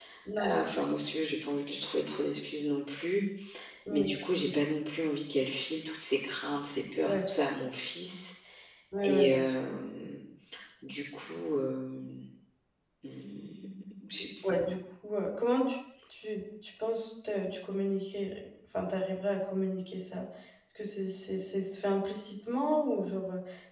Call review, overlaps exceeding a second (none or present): none